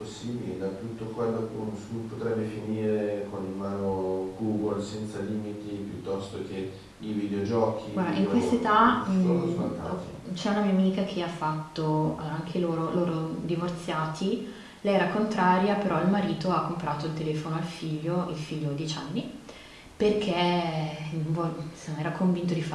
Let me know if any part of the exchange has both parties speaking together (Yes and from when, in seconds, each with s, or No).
Yes, from 7.9 s